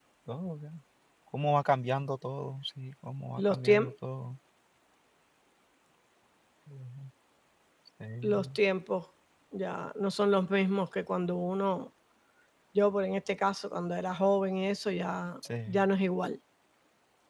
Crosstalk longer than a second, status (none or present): none